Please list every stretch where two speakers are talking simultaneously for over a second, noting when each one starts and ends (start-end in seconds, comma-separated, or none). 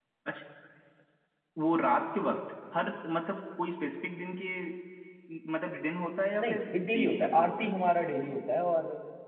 6.4-7.8